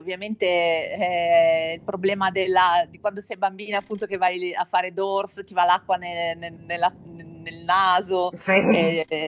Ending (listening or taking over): listening